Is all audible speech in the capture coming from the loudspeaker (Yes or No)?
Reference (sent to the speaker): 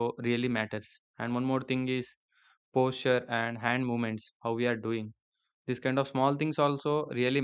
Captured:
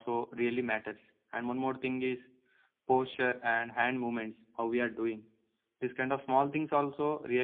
Yes